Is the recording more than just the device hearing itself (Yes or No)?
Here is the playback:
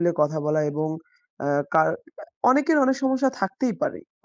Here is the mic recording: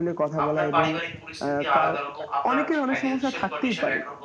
Yes